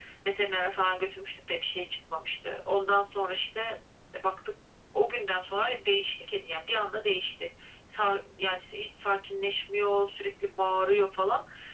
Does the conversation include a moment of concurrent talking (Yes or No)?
No